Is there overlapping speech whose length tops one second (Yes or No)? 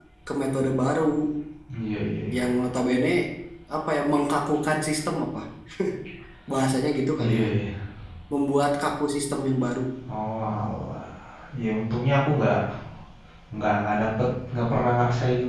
No